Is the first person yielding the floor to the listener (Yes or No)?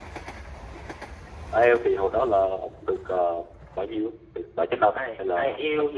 Yes